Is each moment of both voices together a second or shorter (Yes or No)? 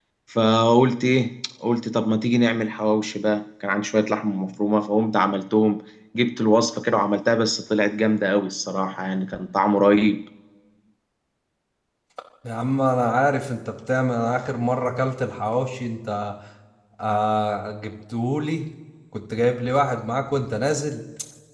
Yes